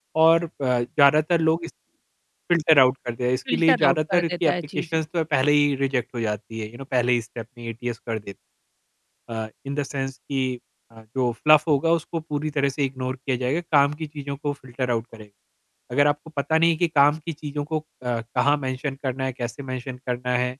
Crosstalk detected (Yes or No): Yes